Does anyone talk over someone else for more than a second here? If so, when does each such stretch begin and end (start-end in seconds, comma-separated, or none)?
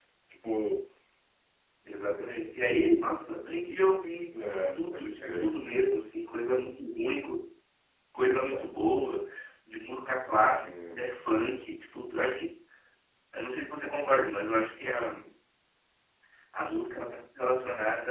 4.3-5.5